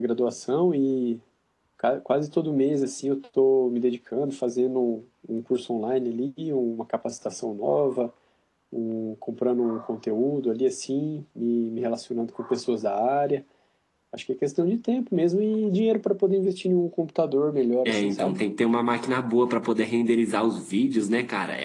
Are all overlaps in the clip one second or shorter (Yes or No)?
Yes